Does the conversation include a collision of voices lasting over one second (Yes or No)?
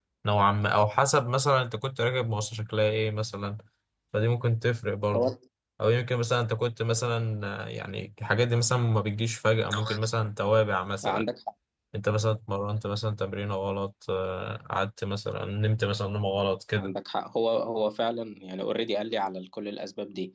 No